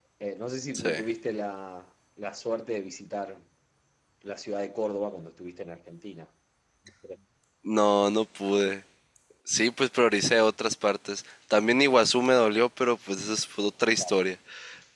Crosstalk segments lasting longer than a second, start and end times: none

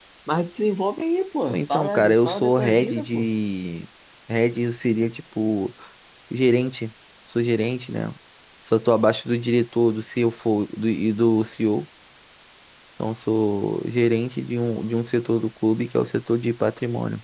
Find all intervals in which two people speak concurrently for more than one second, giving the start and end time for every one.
1.5-3.3

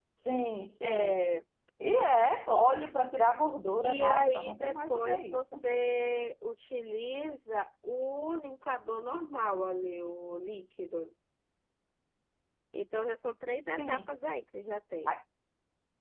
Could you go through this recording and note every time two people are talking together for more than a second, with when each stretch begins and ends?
3.8-5.6

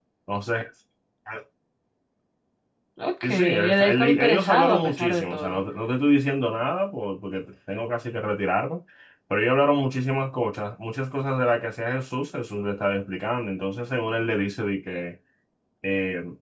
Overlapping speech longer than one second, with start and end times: 3.2-5.6

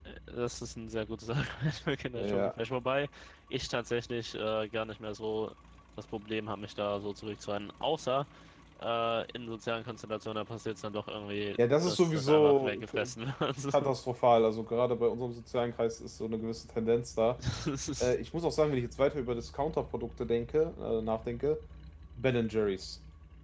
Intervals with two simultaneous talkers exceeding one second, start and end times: 11.9-13.1

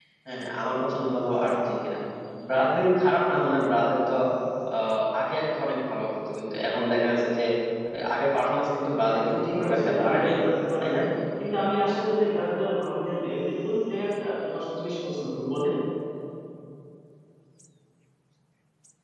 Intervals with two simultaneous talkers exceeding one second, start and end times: 9.1-10.3

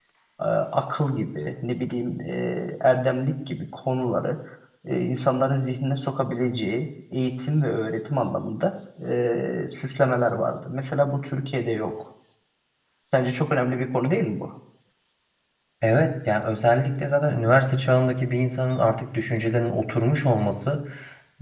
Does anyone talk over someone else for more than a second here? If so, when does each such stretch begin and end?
none

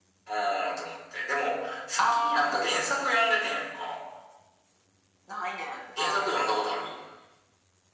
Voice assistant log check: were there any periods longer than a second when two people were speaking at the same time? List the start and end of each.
2.0-3.3

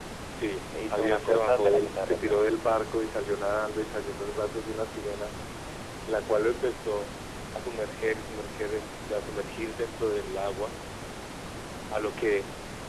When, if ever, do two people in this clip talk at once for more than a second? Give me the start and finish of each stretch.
0.9-2.5

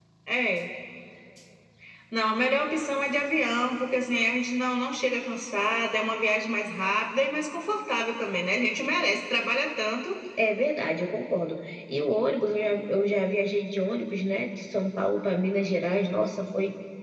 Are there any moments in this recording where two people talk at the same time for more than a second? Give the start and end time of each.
none

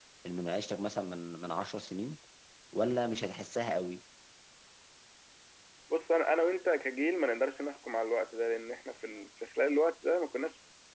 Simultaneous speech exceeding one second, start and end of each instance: none

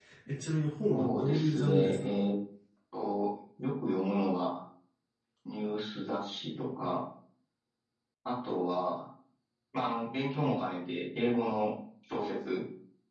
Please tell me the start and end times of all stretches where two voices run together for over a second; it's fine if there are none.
0.9-2.2

